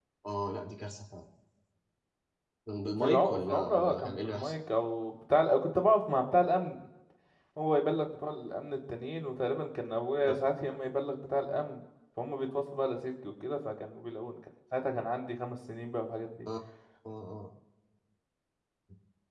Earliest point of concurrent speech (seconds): 3.0 s

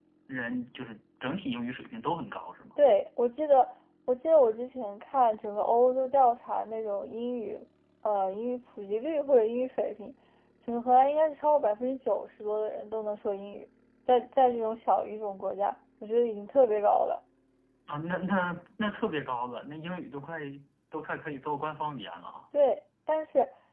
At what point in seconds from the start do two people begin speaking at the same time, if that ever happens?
none

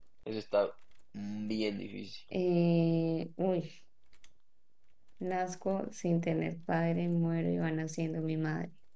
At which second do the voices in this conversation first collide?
none

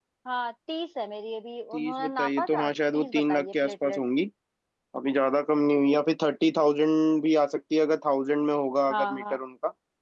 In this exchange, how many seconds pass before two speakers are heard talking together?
1.7 s

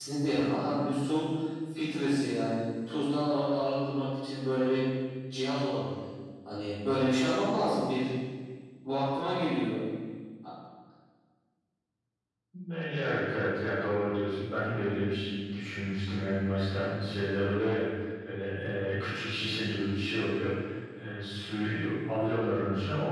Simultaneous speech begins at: none

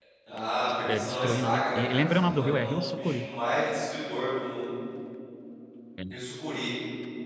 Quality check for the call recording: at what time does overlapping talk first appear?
0.8 s

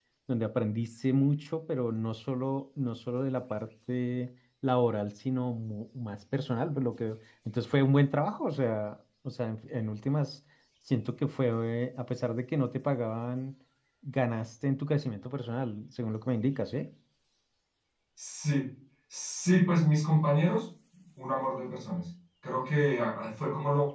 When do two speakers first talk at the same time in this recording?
none

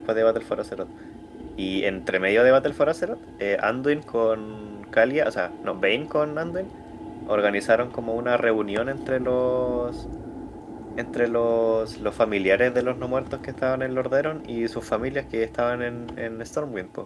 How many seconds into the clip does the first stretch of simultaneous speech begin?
none

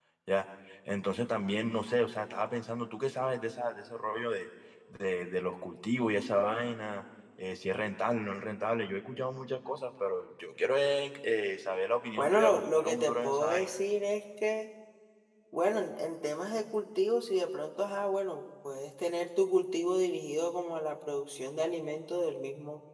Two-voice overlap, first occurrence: 12.2 s

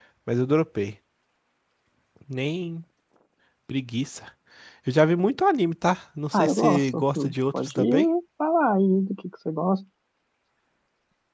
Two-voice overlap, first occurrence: 6.3 s

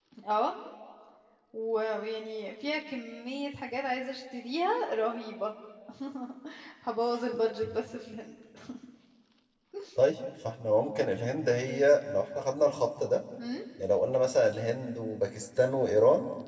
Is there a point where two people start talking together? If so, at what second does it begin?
none

